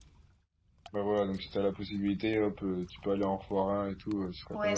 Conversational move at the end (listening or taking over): taking over